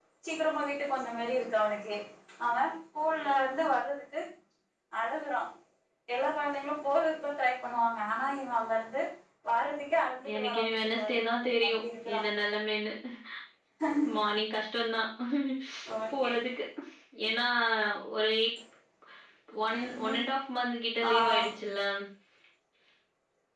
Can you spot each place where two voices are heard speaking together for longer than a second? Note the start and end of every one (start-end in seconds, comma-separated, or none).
10.3-11.7